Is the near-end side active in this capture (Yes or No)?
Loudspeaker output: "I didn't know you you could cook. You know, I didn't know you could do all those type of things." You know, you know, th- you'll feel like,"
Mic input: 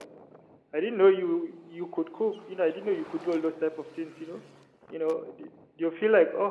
No